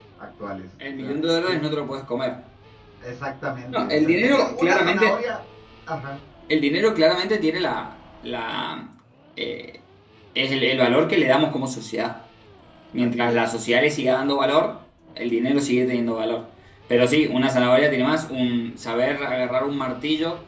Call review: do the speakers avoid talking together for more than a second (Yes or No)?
No